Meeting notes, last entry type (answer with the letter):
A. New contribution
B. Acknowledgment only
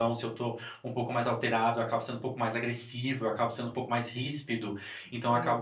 B